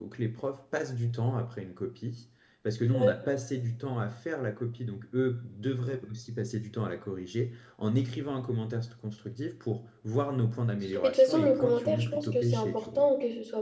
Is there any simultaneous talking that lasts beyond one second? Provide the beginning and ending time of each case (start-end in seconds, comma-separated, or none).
10.9-13.1